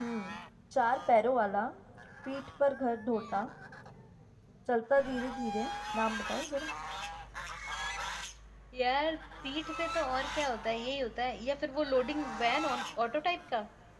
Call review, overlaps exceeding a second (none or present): none